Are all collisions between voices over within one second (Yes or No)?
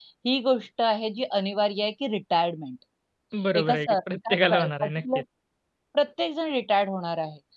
No